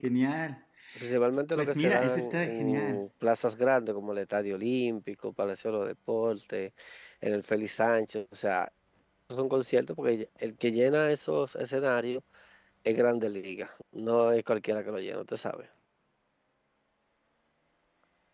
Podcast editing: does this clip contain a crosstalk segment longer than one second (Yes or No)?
Yes